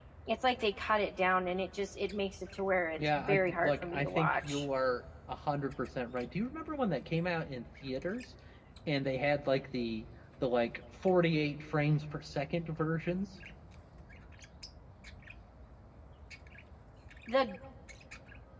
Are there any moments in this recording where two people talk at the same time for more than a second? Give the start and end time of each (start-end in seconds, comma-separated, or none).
3.0-4.6